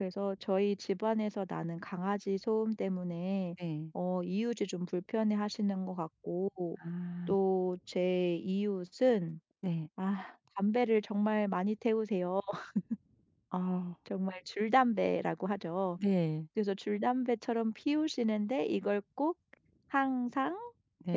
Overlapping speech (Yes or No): No